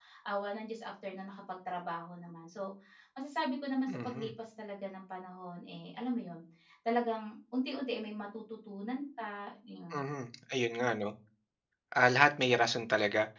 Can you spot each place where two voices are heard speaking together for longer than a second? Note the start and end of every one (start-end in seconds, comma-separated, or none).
none